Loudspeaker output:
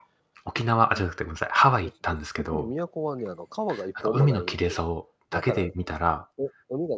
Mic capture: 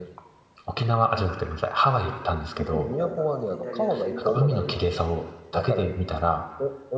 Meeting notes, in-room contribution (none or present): present